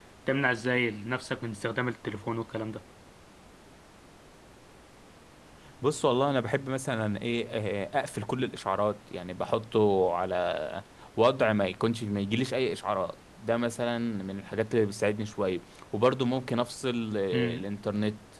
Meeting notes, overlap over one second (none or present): none